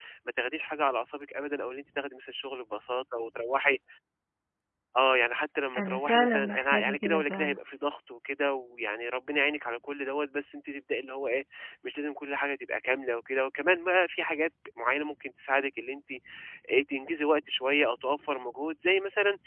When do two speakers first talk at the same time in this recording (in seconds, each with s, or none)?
5.8 s